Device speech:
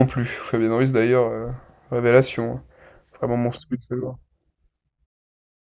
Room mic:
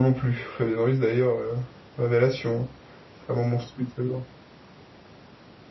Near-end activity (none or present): none